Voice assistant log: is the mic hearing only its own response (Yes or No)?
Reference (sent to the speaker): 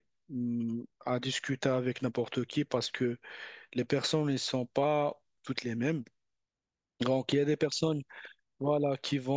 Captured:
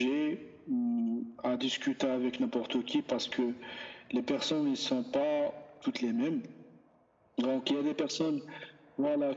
Yes